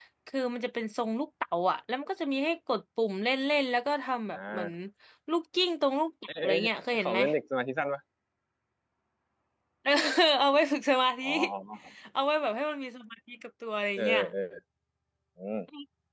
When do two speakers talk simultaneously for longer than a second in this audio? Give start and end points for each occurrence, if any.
none

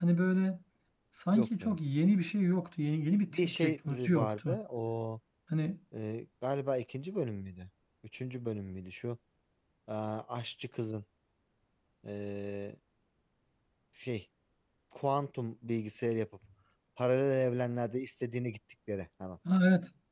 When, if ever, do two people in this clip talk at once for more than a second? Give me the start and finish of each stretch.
3.3-4.6

